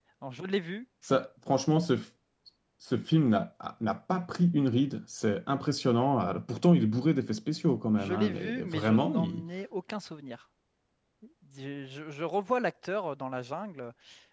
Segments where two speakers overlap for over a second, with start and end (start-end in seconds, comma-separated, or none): 8.0-9.4